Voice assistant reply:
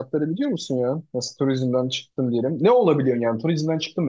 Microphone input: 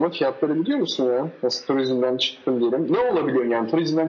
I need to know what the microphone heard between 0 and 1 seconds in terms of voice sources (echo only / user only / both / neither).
echo only